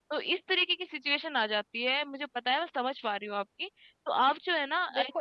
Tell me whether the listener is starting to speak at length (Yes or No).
Yes